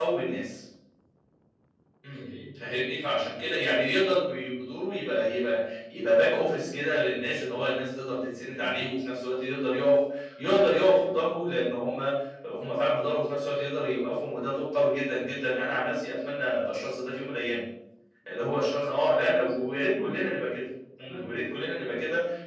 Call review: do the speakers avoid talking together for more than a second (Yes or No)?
No